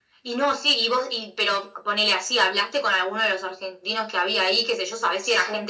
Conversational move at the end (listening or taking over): listening